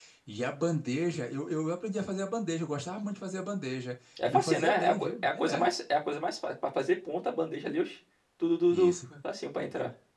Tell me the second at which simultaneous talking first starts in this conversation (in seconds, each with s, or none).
4.3 s